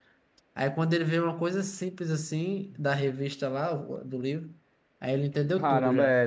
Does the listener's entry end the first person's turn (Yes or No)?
Yes